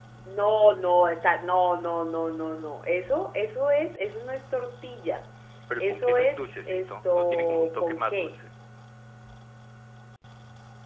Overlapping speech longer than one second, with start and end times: 5.8-8.4

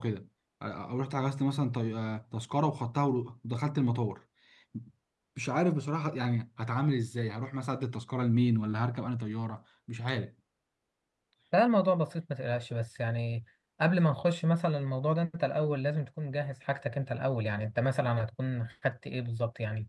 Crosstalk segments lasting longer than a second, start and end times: none

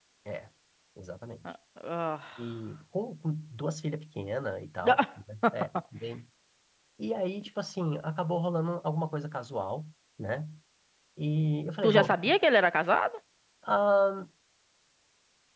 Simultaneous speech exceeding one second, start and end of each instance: none

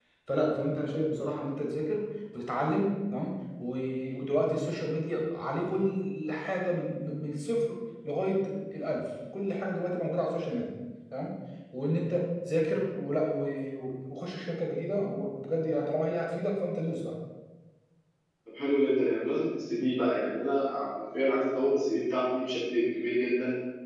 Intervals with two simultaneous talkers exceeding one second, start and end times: none

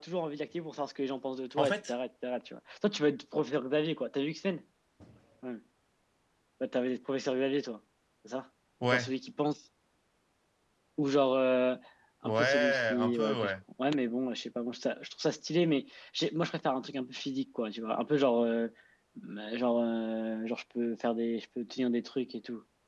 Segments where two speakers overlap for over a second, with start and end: 12.2-13.5

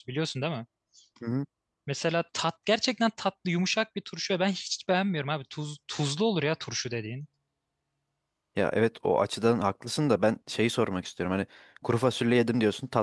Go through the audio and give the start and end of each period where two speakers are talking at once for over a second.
none

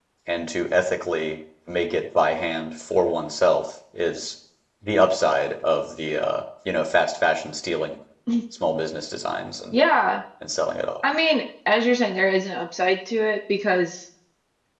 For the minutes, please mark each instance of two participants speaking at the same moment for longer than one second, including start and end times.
none

